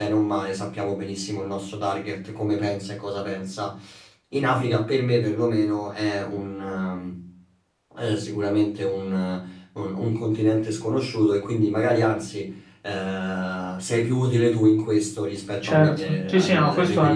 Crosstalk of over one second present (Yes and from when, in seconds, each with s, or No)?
Yes, from 15.6 s